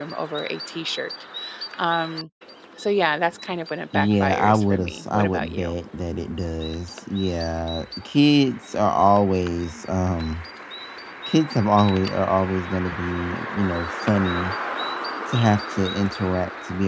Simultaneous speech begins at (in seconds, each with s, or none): 3.9 s